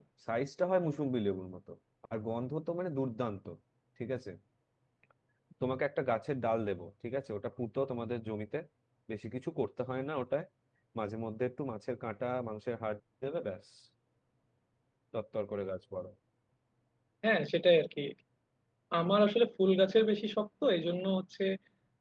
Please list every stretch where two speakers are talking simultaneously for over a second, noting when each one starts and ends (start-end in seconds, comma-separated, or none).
none